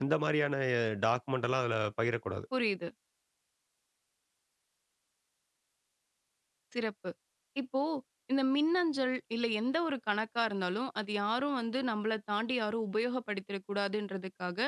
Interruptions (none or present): none